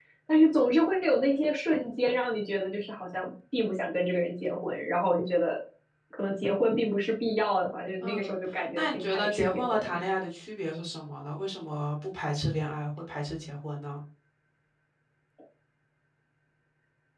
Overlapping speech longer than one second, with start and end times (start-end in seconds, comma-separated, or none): 8.8-10.0